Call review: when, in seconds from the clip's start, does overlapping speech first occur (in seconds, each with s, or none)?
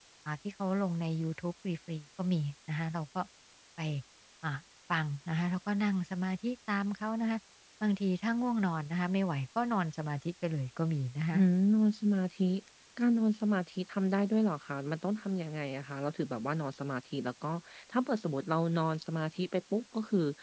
none